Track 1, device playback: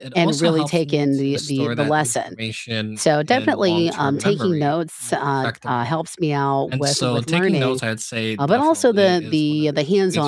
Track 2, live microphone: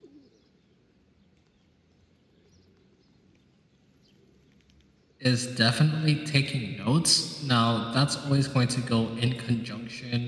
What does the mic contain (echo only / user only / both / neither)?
user only